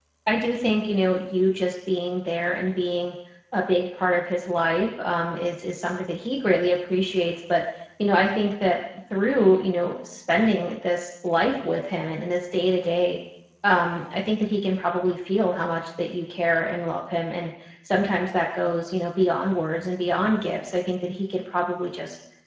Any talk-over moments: No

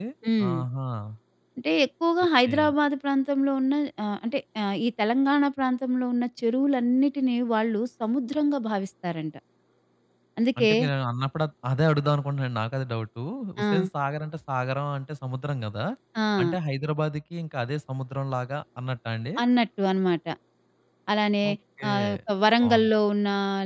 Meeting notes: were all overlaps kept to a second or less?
Yes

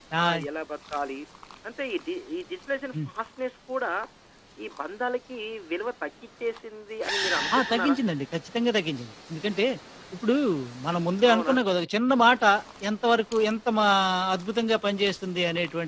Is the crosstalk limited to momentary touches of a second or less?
Yes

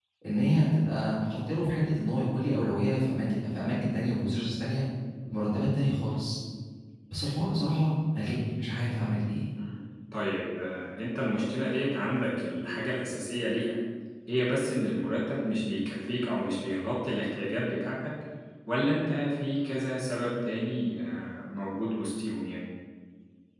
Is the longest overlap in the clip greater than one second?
No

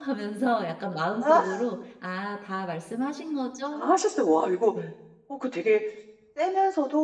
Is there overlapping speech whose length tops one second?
No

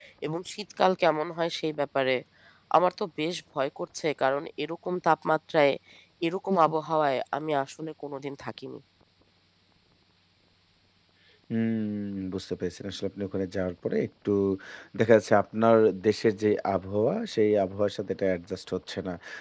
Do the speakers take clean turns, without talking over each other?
Yes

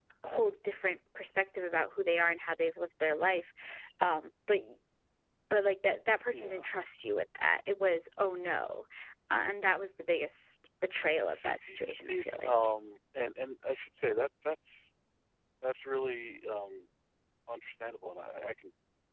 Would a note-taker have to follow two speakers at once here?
Yes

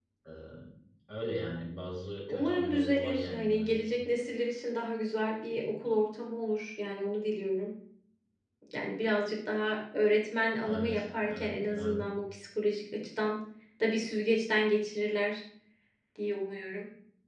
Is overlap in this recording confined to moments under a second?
No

